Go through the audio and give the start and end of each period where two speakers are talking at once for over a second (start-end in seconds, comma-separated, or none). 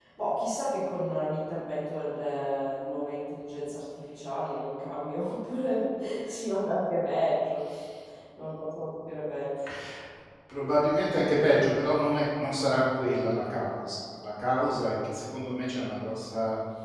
none